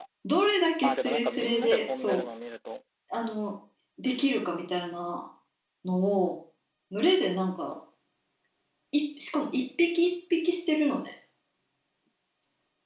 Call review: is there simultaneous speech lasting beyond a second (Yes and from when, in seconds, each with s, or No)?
Yes, from 0.8 s